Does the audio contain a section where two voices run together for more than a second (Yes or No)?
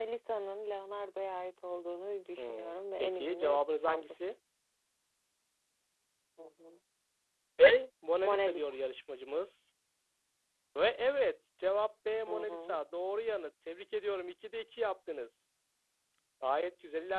Yes